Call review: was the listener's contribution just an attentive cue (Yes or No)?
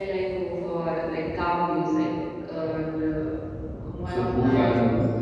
No